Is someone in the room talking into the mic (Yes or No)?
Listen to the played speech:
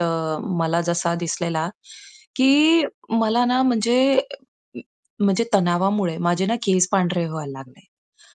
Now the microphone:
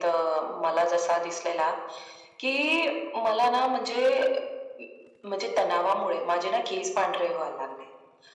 No